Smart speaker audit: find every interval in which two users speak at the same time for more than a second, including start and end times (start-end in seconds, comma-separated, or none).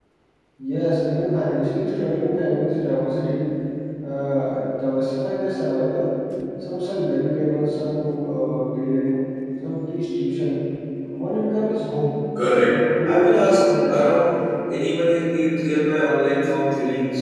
12.7-14.2